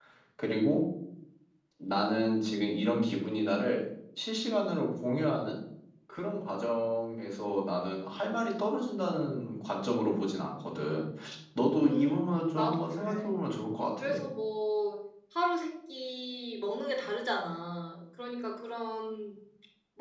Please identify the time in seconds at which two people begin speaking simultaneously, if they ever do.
11.8 s

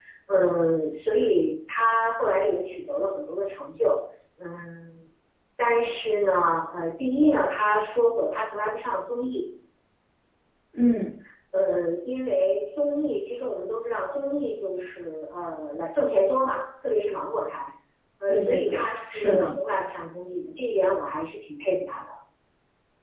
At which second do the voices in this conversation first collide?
18.3 s

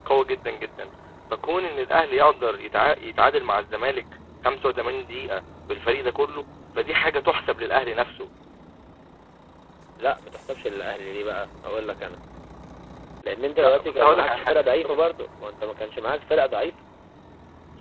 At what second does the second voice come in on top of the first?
13.6 s

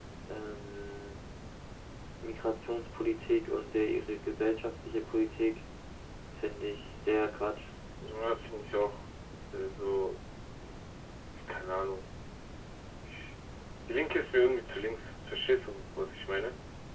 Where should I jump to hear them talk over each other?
none

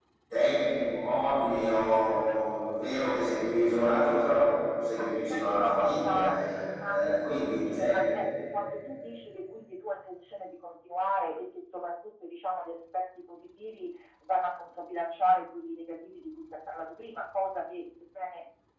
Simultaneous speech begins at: 4.9 s

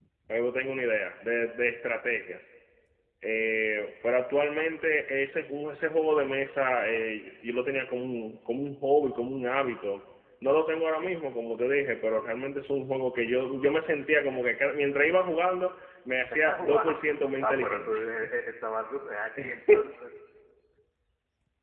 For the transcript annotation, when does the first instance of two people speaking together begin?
16.3 s

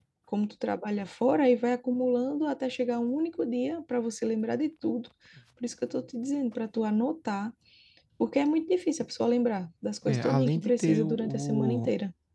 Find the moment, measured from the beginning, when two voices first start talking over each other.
10.1 s

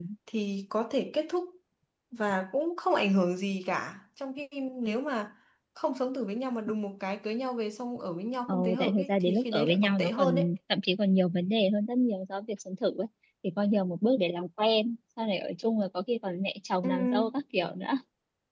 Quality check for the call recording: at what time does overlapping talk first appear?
8.5 s

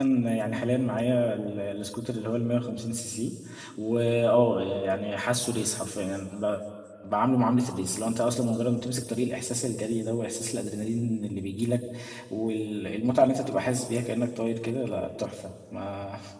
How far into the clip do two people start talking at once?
none

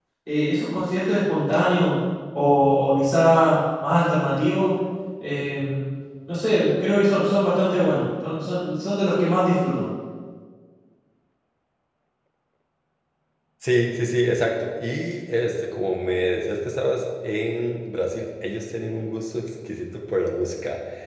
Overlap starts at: none

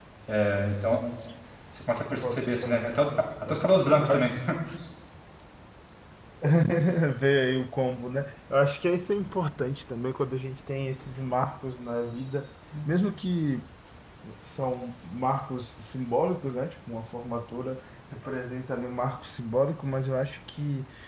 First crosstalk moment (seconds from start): 2.1 s

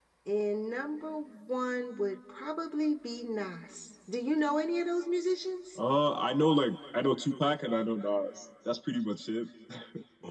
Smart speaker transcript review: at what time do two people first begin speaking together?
none

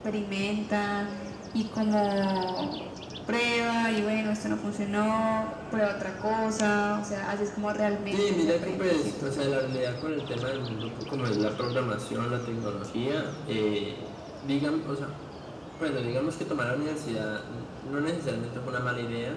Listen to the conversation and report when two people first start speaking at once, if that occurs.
8.1 s

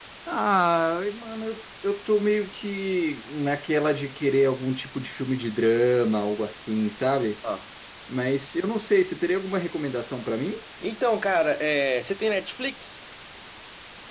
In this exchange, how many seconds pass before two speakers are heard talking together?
none

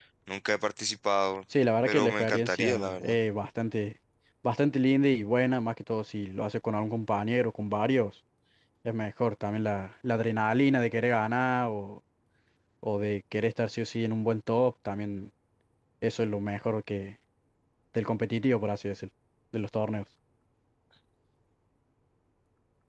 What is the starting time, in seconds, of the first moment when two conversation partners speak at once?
1.9 s

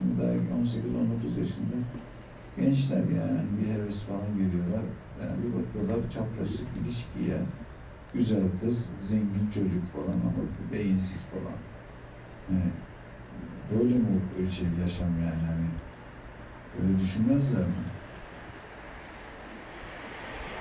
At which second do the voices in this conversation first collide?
none

